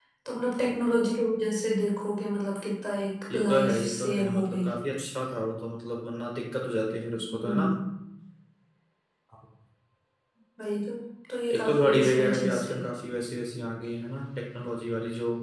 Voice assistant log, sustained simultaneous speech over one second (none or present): present